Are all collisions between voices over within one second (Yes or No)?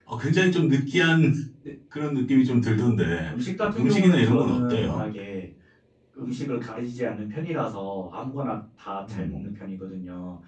No